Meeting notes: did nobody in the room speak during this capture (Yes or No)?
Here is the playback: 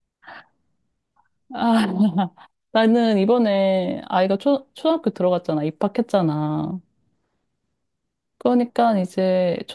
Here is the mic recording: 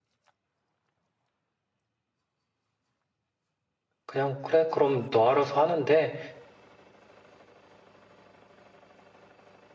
No